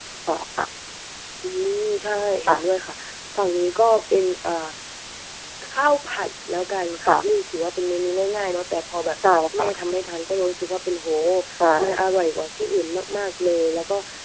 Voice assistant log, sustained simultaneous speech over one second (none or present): none